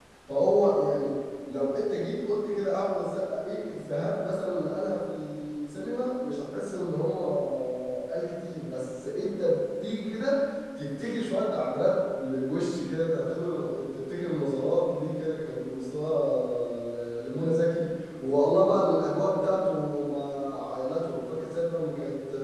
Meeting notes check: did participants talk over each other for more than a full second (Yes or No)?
No